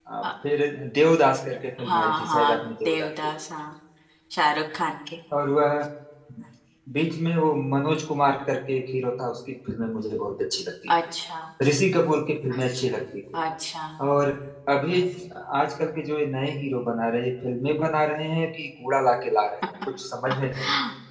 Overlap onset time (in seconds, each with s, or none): 1.8 s